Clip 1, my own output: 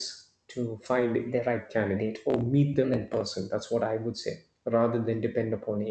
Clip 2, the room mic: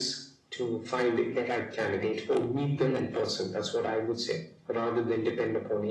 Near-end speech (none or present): none